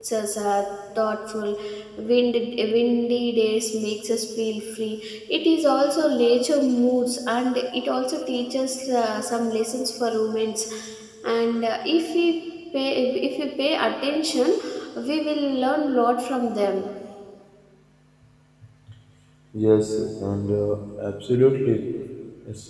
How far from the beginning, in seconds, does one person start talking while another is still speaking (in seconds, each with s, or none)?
none